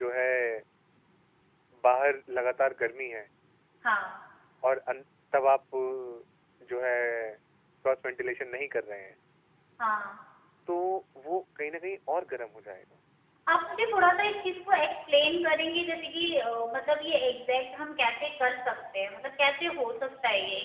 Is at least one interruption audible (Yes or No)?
No